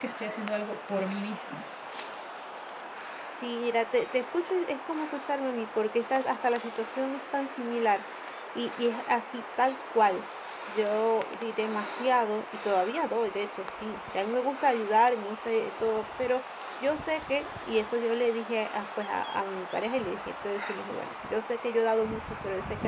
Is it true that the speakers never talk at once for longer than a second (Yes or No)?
Yes